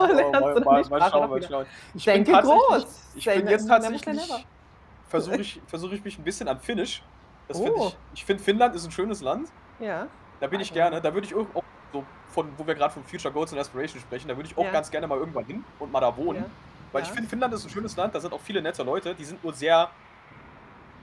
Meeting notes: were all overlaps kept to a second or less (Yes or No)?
No